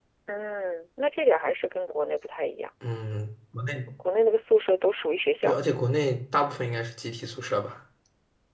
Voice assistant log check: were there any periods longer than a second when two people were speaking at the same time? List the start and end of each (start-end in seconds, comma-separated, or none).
none